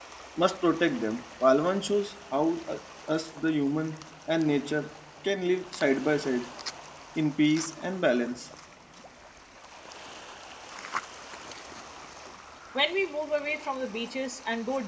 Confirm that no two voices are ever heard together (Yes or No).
Yes